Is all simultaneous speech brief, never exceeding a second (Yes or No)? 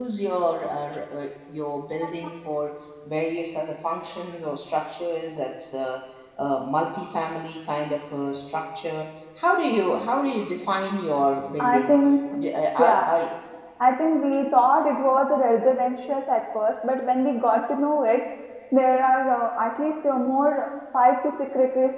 Yes